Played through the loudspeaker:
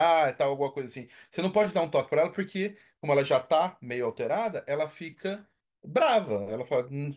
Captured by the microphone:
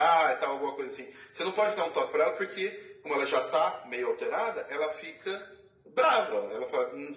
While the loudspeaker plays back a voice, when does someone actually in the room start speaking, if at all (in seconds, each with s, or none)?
none